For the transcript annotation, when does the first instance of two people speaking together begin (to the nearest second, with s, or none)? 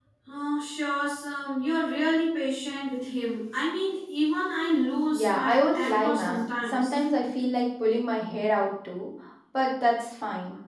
5 s